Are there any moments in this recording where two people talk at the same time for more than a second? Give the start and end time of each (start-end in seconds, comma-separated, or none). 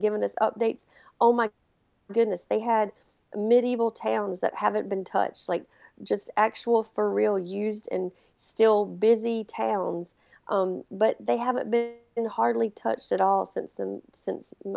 none